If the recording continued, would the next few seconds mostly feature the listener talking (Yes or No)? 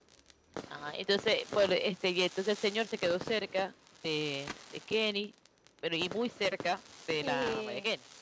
Yes